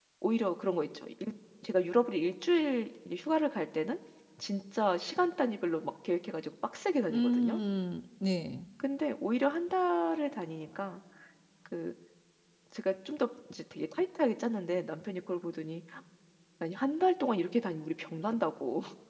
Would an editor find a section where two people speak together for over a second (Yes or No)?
No